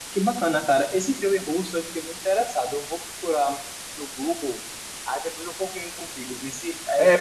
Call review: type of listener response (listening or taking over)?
taking over